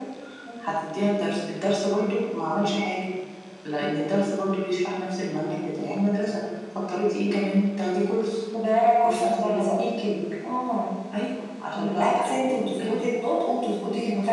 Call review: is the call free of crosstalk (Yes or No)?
No